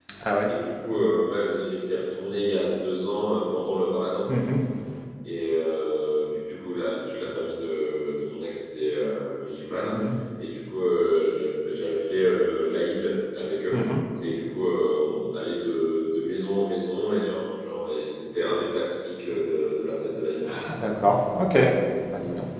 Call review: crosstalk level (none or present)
none